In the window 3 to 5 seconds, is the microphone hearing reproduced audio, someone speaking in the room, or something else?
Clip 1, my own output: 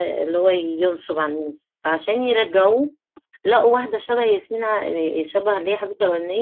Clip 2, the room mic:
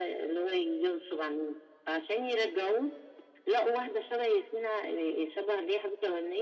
echo only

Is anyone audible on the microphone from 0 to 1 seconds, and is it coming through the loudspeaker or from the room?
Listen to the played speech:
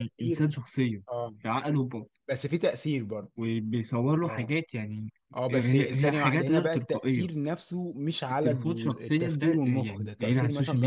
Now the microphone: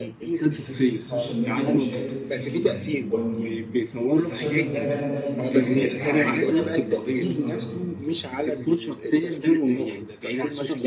both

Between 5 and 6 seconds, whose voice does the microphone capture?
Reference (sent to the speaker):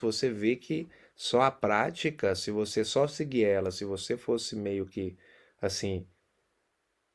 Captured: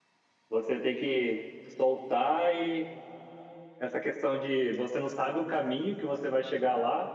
user only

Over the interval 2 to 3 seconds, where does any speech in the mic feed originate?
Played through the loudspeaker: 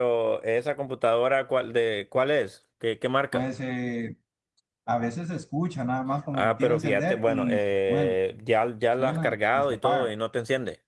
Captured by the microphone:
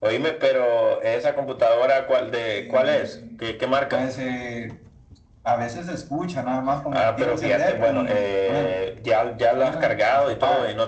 both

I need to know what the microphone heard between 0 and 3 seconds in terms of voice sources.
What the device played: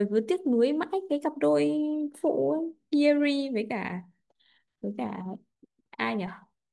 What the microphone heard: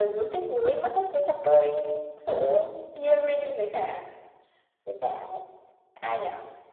echo only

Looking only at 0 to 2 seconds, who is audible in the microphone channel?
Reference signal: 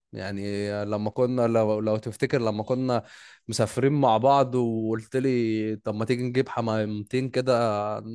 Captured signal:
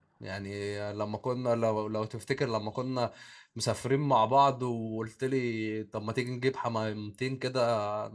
echo only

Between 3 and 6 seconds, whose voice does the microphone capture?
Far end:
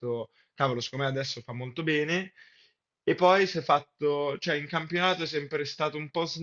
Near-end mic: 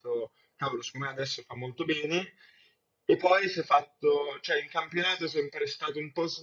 echo only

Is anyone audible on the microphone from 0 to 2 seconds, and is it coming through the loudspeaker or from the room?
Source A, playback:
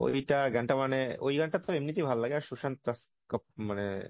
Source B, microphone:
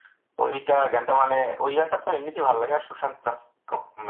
echo only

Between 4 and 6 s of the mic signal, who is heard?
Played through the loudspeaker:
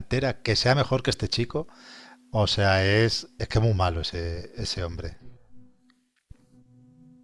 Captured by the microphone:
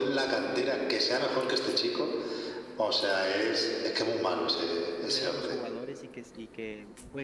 both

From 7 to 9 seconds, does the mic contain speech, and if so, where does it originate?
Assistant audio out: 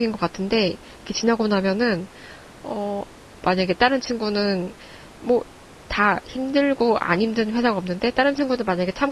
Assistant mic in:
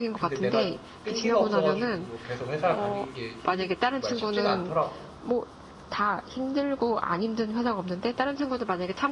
echo only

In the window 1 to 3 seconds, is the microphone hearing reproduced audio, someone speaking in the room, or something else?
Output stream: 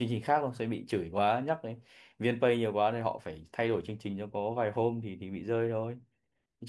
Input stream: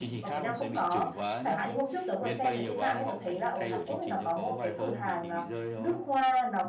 both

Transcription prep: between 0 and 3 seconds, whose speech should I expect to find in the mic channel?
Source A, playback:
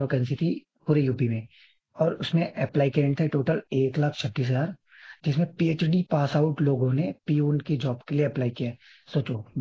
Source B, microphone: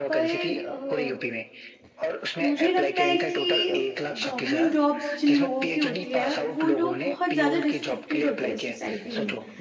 both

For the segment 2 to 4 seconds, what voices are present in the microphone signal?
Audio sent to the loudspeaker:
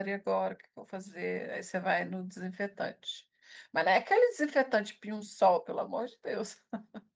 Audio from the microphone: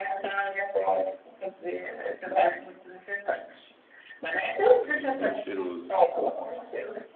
echo only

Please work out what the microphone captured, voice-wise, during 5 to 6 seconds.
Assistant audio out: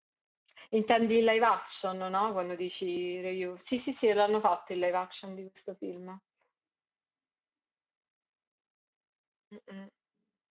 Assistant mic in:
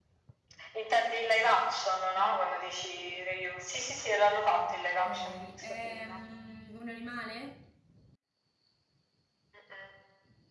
both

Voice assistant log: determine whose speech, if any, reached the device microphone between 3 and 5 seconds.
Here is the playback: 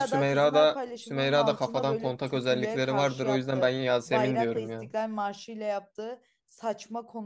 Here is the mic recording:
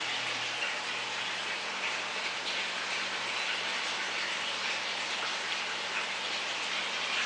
neither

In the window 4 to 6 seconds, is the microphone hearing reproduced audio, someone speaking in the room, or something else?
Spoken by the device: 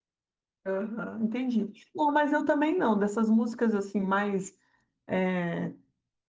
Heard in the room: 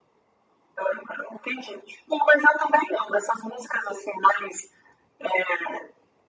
echo only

